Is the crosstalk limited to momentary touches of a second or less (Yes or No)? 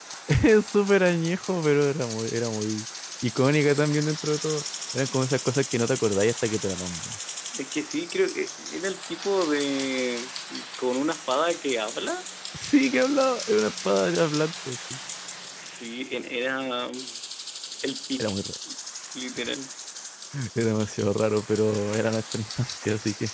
Yes